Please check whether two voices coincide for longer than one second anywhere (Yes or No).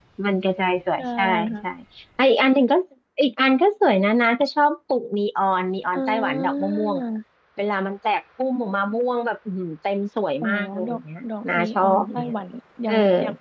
Yes